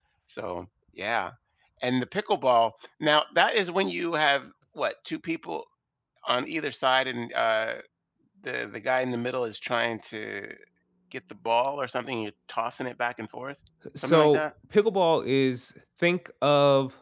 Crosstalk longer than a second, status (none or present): none